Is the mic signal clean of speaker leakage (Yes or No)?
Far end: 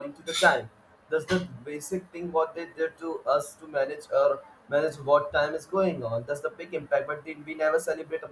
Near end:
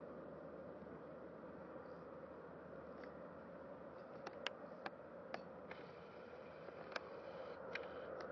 Yes